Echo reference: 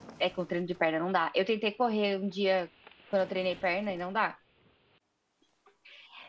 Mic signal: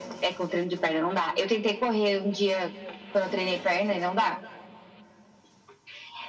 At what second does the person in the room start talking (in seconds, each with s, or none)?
none